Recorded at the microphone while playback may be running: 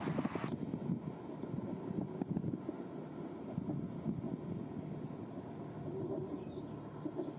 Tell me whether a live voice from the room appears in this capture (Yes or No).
No